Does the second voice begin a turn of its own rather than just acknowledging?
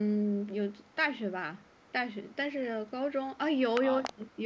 Yes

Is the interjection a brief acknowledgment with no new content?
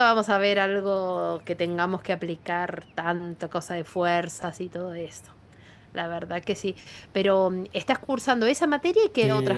No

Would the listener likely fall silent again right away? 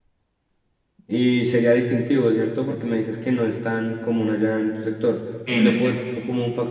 Yes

